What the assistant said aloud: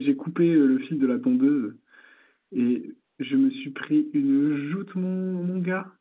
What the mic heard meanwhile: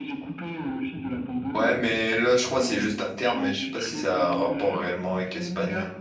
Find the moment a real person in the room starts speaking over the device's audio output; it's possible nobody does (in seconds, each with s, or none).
1.5 s